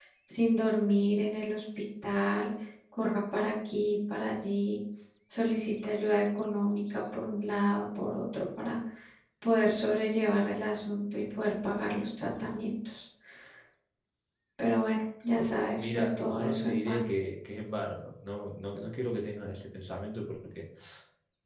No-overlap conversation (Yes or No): No